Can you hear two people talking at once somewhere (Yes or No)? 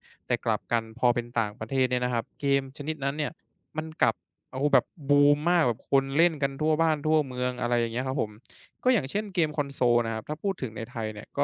No